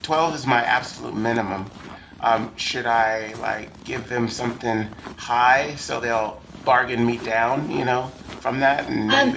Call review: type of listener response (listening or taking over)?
taking over